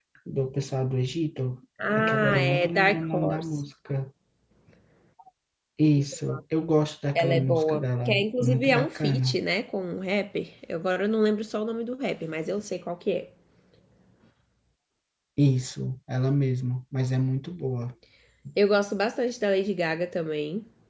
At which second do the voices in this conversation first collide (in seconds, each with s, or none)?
2.0 s